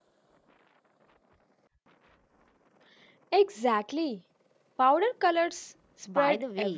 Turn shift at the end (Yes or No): Yes